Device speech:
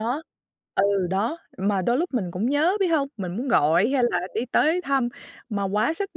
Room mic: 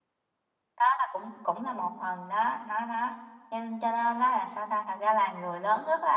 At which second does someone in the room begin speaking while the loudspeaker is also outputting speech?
1 s

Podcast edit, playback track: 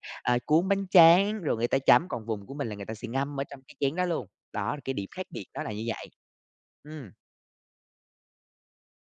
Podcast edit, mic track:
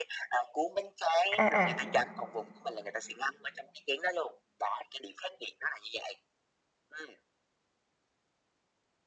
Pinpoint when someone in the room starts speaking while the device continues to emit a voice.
1 s

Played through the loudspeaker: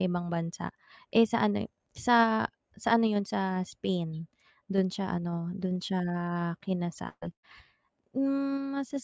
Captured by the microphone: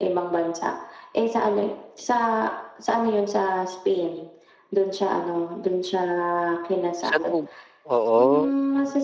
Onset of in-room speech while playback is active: 7 s

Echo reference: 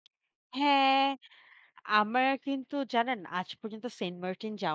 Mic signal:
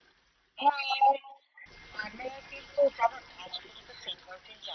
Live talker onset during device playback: none

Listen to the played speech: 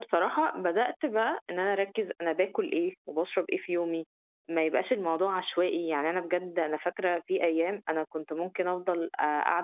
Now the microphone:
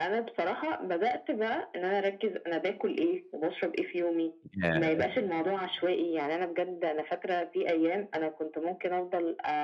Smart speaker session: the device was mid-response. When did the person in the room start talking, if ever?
5 s

